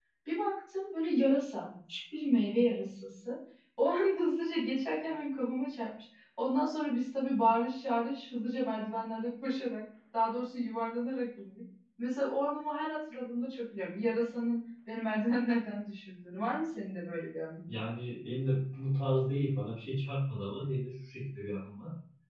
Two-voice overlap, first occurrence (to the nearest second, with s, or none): none